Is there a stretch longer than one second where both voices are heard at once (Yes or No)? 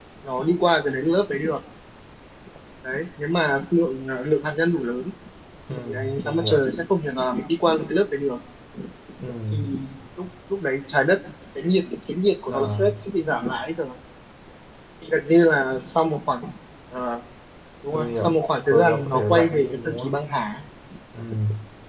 Yes